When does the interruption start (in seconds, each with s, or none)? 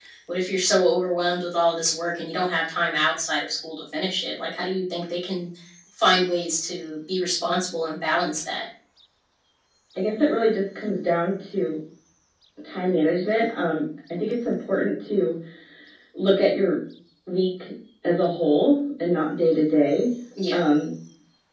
none